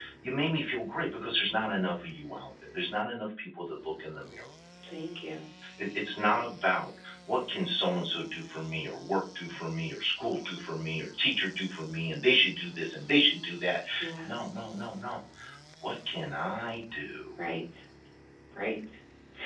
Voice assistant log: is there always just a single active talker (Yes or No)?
Yes